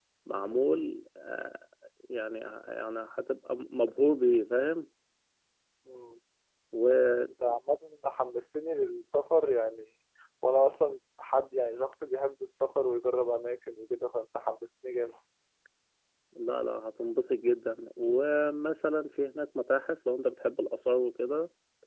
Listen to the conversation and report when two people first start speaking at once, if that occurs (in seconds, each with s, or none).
none